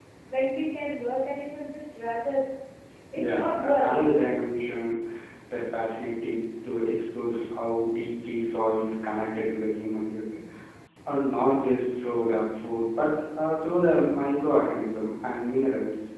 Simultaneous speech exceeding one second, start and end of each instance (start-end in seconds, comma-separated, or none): 3.2-4.4